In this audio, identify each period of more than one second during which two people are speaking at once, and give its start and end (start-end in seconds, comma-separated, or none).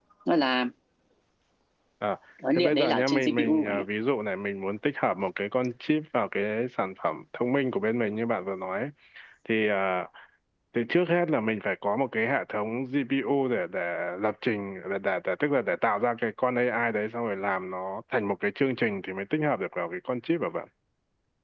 2.5-3.8